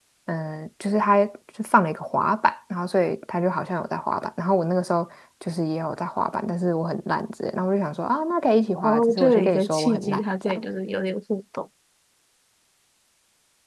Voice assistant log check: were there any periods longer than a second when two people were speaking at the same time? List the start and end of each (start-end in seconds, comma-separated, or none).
8.8-10.6